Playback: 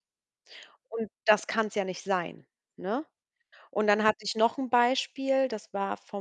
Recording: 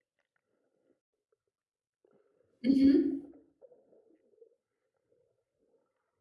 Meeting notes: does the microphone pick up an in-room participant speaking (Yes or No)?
Yes